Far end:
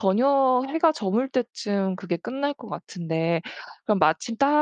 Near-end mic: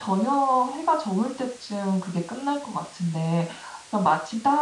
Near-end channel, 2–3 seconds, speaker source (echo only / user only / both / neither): echo only